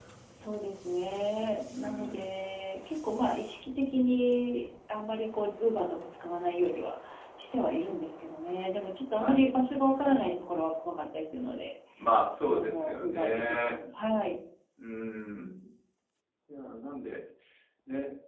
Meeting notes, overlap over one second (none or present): present